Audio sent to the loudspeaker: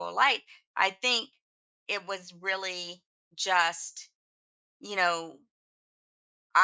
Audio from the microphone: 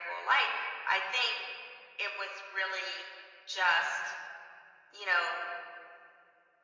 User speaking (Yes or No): No